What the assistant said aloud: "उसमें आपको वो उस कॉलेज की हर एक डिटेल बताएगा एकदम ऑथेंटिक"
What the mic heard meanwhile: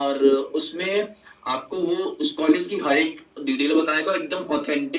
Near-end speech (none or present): none